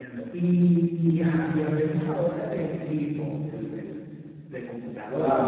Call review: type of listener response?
taking over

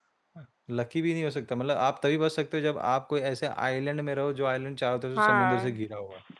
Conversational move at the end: taking over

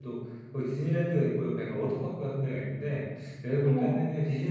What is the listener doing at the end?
listening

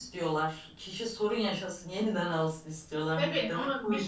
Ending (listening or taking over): taking over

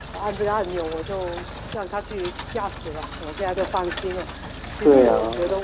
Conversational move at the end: listening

